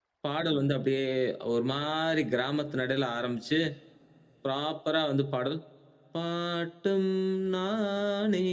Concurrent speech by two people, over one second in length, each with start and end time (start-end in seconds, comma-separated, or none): none